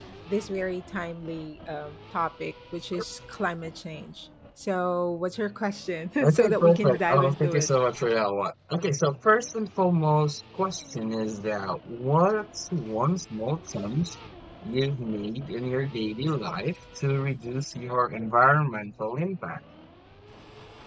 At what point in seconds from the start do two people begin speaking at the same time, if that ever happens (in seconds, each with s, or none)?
6.2 s